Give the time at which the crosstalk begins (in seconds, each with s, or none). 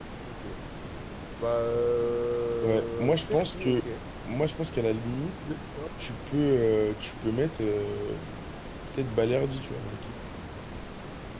2.6 s